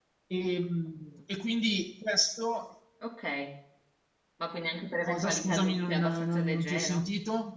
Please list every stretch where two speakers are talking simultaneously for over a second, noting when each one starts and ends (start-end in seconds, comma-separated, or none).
5.0-7.0